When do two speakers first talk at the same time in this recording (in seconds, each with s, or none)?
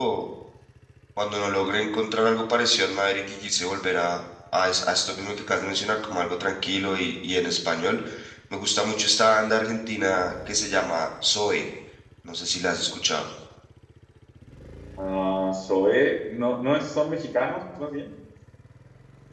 none